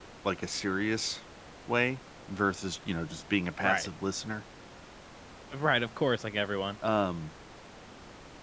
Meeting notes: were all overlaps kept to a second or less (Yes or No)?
Yes